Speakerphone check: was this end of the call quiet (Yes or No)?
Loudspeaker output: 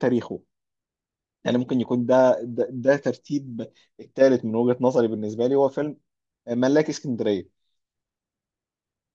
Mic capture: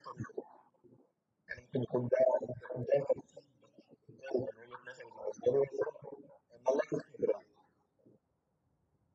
Yes